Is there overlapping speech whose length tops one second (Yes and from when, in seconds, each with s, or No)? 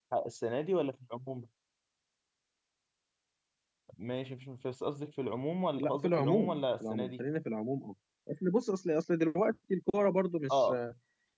Yes, from 5.8 s